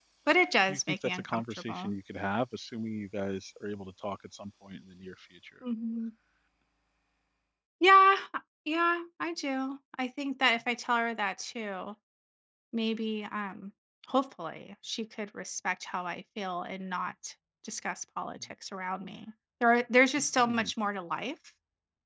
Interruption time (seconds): 0.7 s

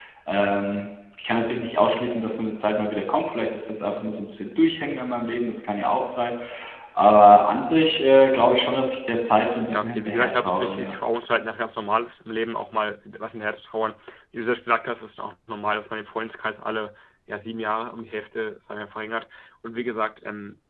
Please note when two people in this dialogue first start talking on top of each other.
9.7 s

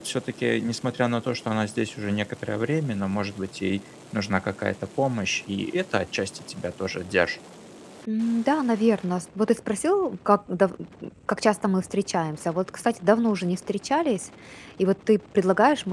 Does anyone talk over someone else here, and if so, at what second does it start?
none

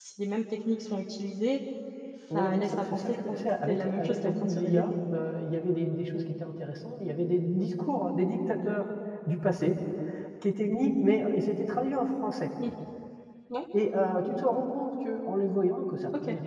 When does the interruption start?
2.3 s

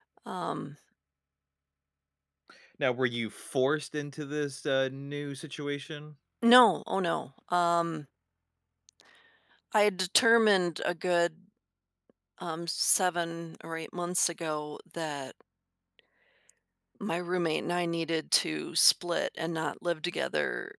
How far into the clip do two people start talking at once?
none

